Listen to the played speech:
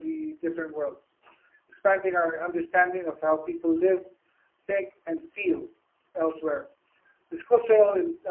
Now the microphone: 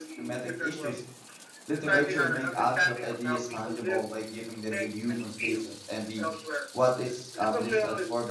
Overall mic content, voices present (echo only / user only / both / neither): both